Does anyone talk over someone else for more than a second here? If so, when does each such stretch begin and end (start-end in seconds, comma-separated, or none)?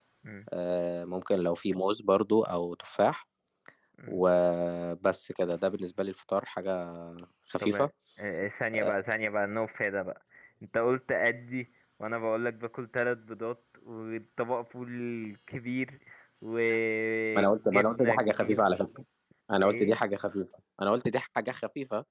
17.4-18.7